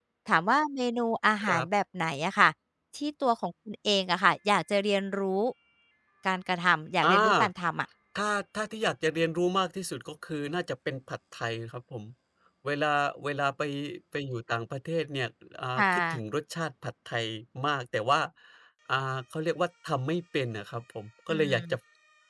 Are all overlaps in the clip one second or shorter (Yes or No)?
Yes